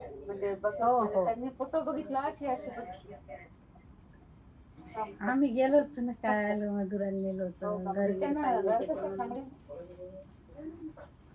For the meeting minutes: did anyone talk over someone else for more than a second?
Yes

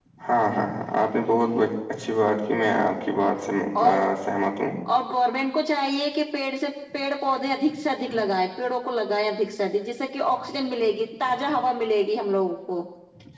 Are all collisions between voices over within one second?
Yes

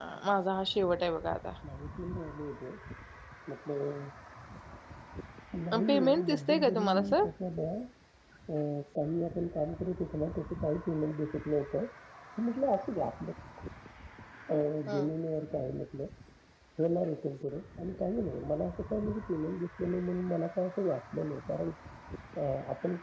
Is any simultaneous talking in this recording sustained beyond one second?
Yes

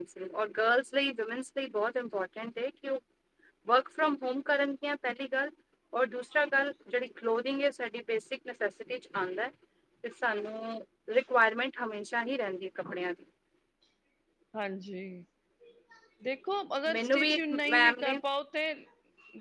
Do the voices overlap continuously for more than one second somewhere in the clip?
Yes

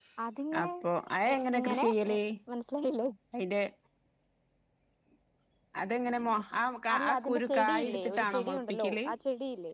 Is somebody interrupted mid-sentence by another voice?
Yes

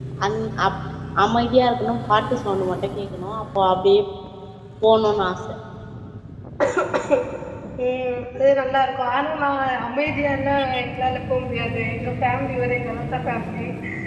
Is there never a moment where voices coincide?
Yes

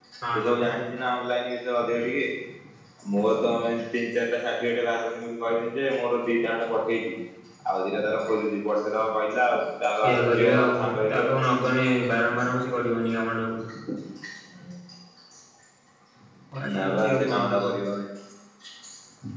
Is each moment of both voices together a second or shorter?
No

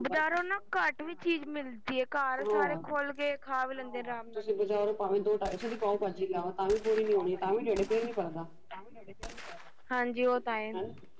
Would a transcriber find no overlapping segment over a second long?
Yes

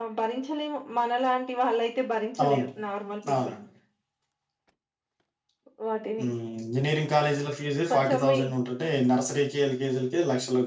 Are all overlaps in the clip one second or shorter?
Yes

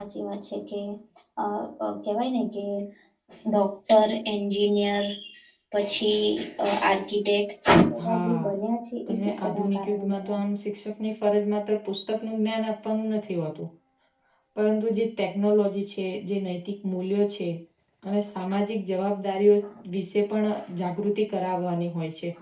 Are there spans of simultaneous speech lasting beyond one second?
Yes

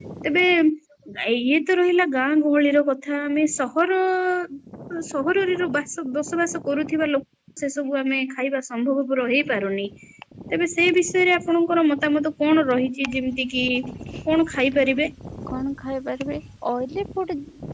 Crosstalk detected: No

